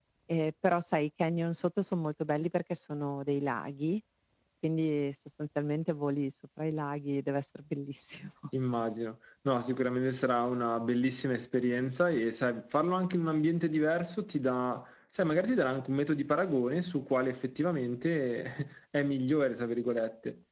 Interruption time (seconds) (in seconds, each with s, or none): none